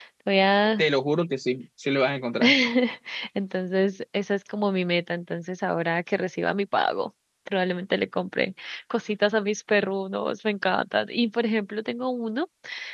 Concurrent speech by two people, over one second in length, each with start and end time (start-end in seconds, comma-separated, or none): none